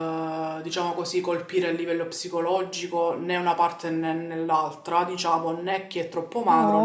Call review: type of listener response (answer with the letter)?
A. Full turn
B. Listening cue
A